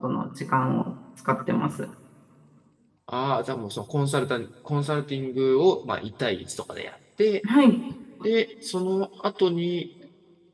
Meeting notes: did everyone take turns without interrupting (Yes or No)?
Yes